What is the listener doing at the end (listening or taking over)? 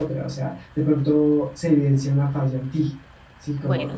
taking over